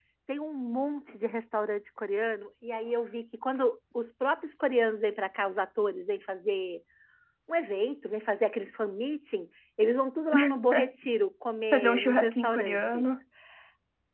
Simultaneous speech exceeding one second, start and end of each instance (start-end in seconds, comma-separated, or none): 11.7-13.0